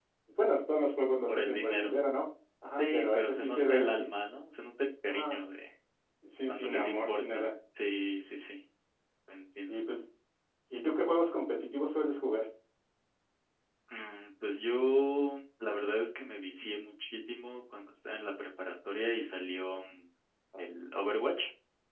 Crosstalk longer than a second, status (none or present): present